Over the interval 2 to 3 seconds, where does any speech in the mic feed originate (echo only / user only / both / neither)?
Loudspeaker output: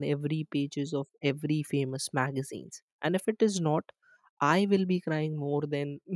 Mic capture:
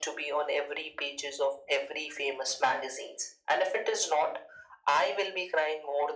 echo only